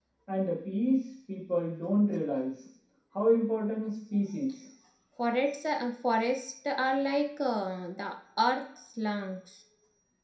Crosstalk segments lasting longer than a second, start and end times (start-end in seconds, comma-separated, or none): none